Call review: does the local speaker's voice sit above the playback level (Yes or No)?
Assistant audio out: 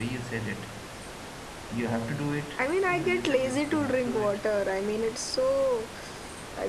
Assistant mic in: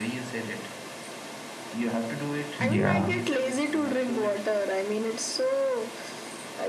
Yes